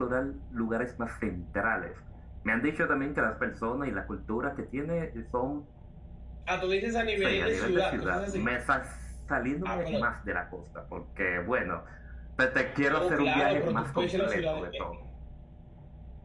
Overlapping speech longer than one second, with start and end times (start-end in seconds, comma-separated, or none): 7.2-8.5, 12.9-14.8